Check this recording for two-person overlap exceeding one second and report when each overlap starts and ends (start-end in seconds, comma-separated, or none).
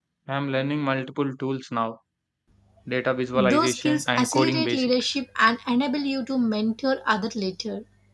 3.3-5.2